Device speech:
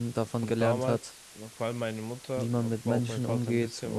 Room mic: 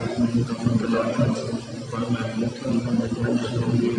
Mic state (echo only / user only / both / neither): echo only